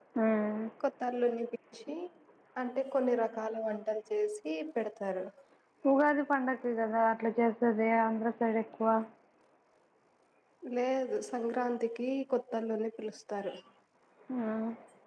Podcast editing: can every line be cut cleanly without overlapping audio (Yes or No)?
Yes